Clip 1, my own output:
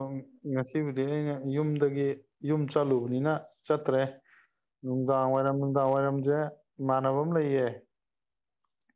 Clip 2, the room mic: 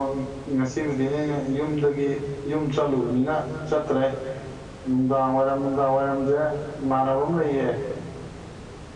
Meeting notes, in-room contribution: none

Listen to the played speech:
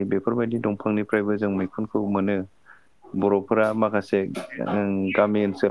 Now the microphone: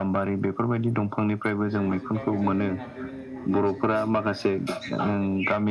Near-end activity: present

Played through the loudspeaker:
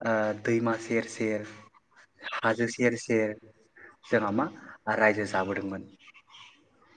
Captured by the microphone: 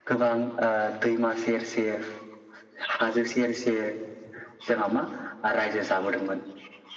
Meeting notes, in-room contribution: none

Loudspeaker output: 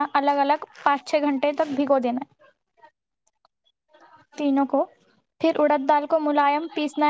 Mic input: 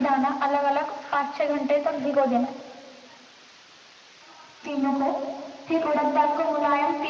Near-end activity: none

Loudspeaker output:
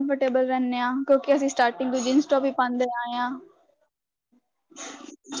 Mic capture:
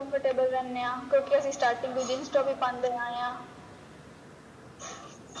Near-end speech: none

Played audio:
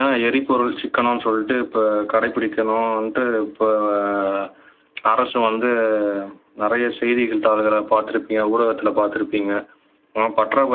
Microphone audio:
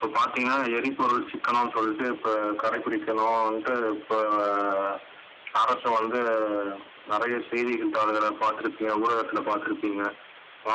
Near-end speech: none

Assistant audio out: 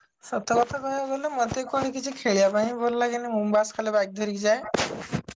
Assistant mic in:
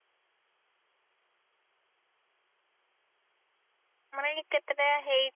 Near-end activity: present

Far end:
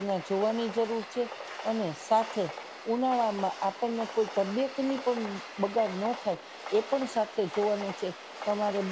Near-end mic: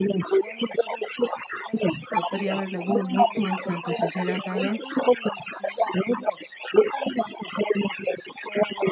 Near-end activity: present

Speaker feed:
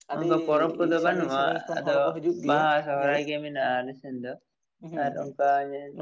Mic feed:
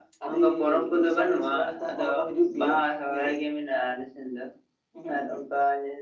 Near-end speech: none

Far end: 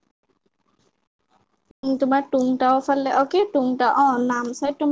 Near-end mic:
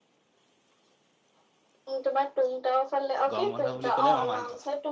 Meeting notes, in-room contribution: present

